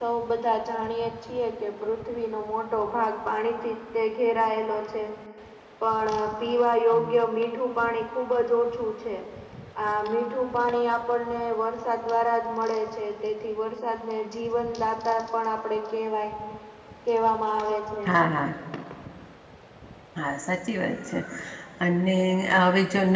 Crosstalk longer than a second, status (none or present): none